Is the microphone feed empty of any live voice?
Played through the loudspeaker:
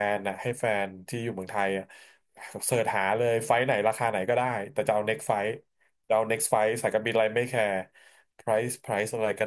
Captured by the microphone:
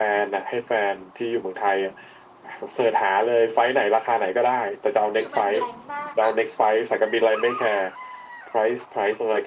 No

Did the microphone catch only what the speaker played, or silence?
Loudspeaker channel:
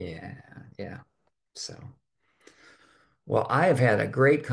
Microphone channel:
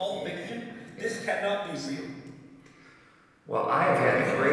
No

